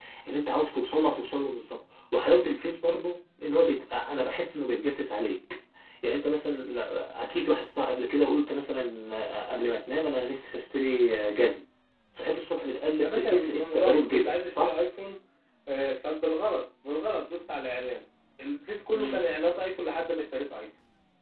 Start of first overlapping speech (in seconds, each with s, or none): 13.0 s